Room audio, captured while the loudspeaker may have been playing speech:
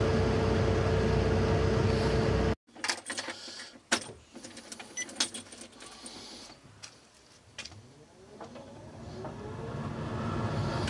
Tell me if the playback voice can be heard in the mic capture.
No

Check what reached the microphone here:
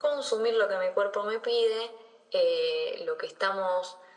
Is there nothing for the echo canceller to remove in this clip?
No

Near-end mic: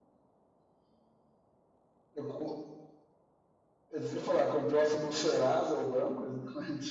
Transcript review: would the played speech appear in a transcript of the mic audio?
No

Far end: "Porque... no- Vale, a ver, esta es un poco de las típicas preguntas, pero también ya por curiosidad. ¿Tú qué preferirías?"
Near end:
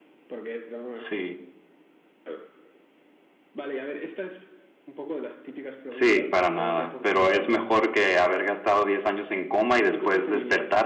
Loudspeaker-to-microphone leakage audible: Yes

